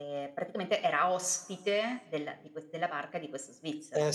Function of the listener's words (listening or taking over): taking over